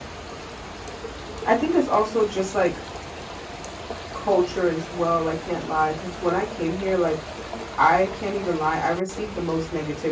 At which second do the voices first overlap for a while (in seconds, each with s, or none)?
none